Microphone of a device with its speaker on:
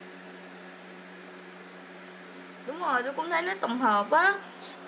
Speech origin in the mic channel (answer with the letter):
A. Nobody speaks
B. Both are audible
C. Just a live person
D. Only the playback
C